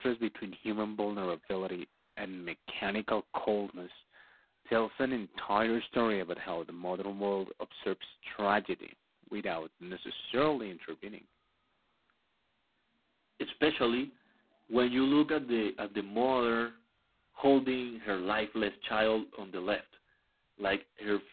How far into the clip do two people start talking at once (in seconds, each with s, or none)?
none